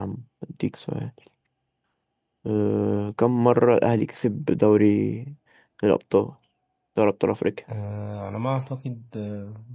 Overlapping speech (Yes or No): No